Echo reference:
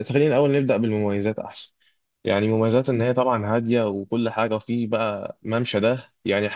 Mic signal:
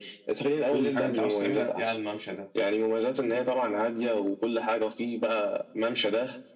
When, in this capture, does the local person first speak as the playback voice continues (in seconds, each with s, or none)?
0.7 s